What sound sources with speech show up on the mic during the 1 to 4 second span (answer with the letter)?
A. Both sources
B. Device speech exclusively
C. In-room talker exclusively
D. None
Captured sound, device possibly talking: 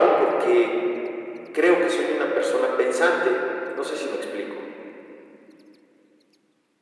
B